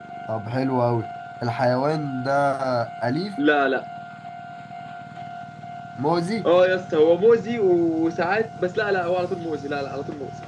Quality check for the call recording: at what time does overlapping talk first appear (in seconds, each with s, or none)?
none